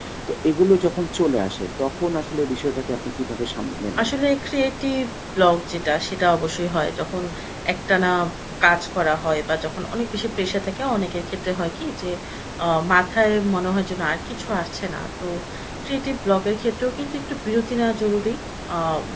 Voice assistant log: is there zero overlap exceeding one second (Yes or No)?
Yes